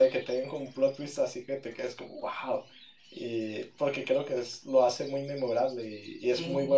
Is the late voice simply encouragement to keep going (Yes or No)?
Yes